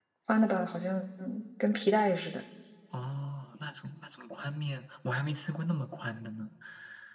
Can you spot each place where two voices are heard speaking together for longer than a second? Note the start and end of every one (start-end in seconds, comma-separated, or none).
none